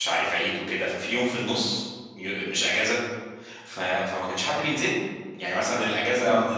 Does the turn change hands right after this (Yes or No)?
No